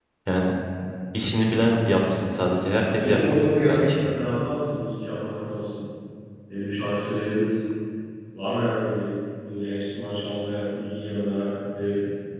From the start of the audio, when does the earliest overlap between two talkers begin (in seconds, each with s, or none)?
2.8 s